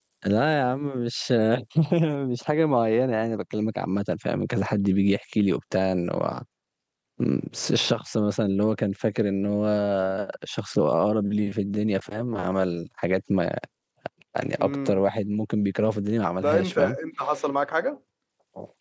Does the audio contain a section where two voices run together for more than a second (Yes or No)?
No